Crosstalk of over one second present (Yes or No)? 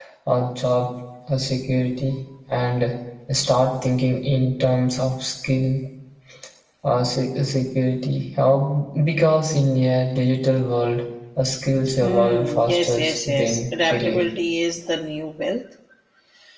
Yes